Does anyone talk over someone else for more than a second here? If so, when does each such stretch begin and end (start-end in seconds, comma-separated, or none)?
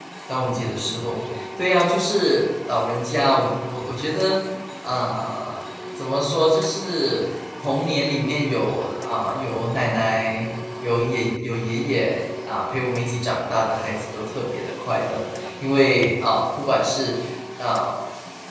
none